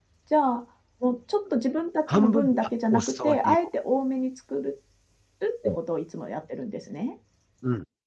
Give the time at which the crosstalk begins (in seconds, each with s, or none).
2.1 s